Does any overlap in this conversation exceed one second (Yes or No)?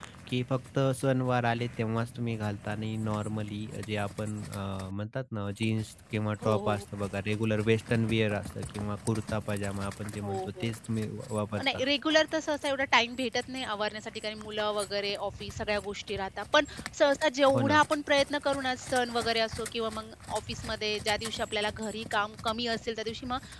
No